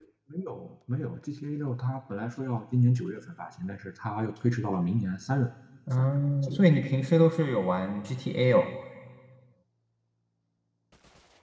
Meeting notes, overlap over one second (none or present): none